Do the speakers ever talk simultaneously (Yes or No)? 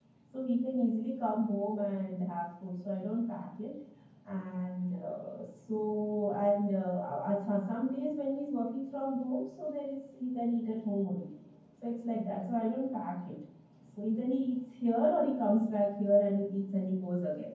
No